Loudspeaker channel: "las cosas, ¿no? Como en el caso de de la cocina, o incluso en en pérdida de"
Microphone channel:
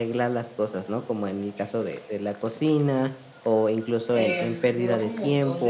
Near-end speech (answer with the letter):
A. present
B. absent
A